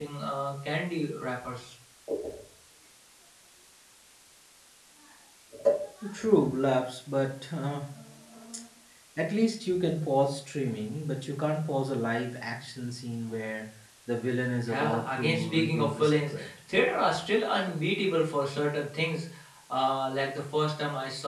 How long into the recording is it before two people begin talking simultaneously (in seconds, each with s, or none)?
14.7 s